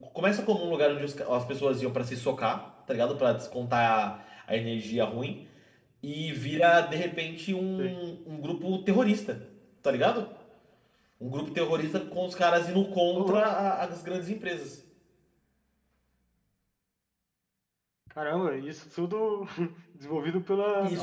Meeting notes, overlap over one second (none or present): none